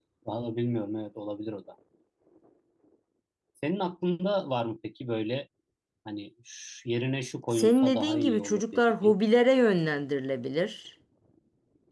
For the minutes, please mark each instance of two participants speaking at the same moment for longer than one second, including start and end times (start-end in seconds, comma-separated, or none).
7.5-9.1